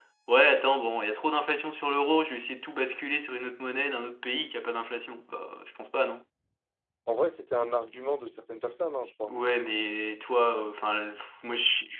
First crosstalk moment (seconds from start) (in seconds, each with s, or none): none